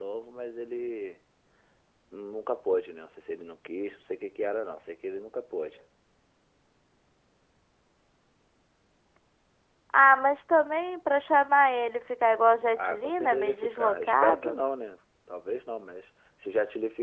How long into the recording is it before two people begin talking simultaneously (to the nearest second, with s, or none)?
13 s